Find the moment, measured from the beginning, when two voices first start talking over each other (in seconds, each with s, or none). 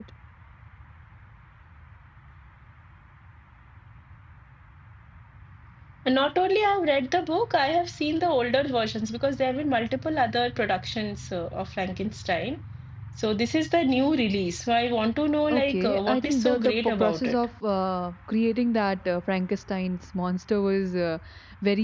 15.5 s